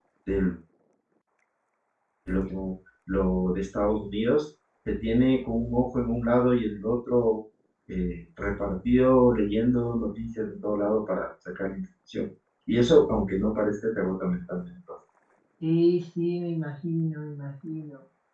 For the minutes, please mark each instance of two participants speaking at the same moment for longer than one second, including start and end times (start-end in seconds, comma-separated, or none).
none